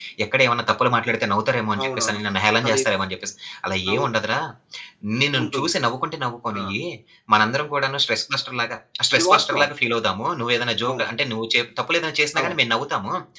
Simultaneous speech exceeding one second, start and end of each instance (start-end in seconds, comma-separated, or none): none